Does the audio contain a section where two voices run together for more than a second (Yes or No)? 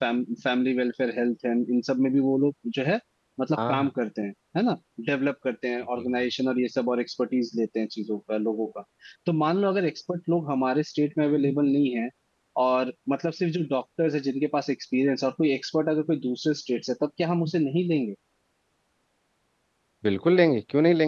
No